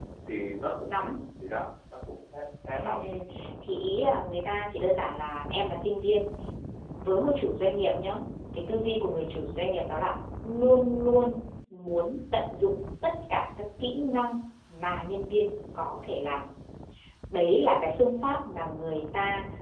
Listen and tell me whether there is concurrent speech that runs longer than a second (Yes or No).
No